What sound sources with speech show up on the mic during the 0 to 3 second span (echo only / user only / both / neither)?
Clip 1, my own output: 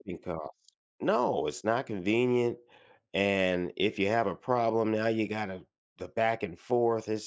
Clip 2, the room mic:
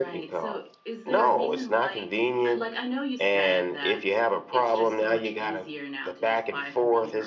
both